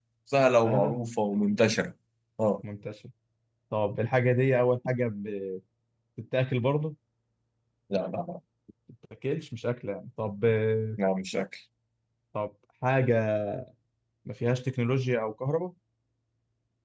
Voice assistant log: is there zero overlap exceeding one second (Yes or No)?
Yes